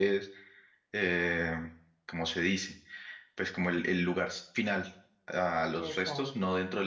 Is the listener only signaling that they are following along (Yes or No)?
Yes